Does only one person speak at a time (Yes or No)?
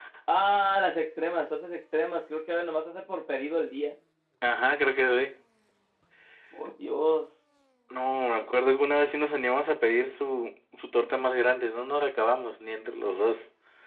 Yes